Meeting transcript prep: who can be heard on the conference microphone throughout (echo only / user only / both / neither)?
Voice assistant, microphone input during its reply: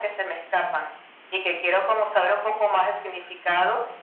echo only